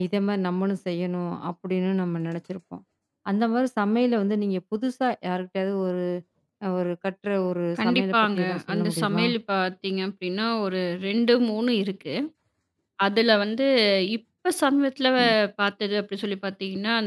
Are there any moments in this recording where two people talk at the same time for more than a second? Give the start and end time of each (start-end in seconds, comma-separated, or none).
7.8-9.3